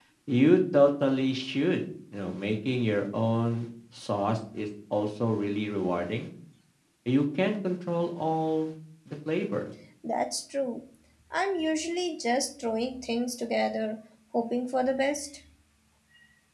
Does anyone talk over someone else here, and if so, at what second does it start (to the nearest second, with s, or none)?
none